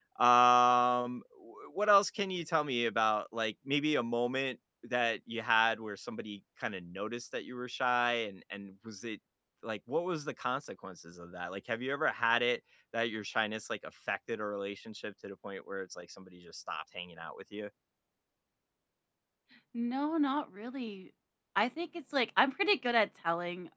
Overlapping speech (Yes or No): No